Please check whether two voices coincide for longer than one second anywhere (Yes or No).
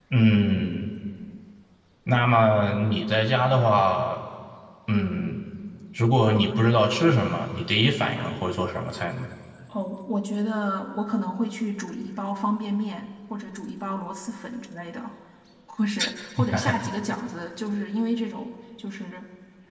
No